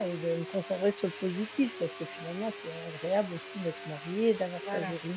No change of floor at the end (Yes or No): Yes